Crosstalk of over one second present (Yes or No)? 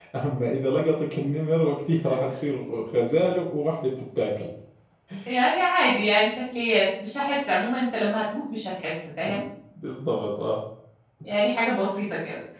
No